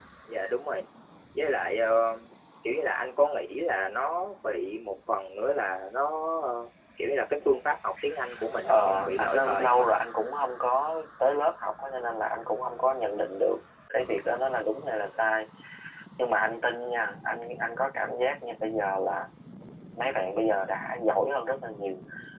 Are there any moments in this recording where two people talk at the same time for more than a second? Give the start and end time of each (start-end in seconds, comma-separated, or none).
8.6-9.9